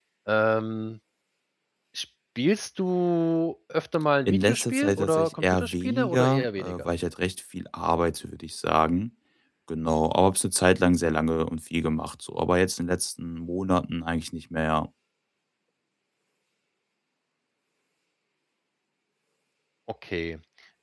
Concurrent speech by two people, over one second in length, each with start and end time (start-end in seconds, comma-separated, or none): 4.2-6.9